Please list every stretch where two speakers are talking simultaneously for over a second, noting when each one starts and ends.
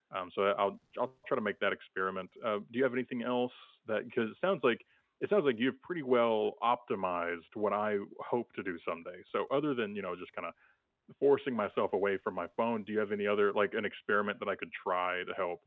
none

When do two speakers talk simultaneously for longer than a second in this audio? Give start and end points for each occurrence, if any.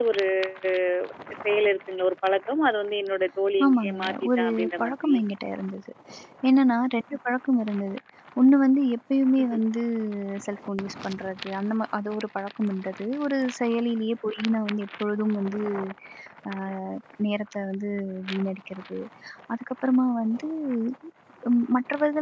3.6-5.1

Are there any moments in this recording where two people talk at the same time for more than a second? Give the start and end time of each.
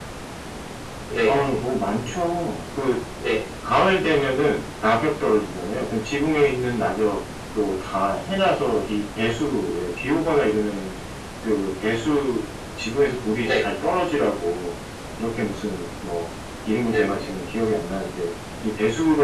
none

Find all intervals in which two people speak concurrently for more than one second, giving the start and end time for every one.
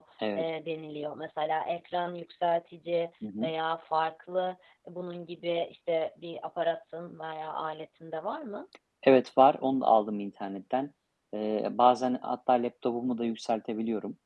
none

